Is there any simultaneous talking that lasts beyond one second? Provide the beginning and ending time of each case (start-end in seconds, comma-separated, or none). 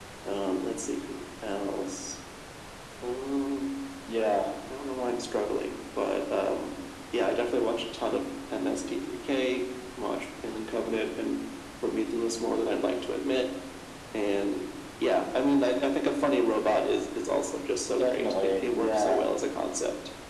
18.0-19.2